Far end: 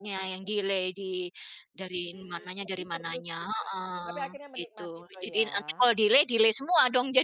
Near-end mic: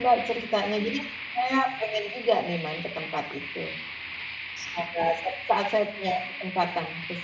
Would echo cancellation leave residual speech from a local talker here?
Yes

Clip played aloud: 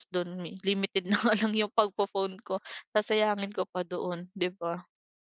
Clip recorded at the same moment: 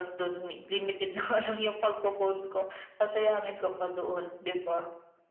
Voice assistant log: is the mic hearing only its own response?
Yes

